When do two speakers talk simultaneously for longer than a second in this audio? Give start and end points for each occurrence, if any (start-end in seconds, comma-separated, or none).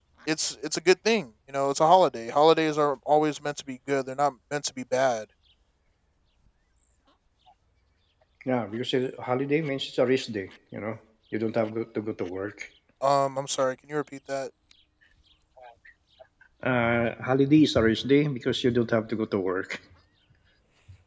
none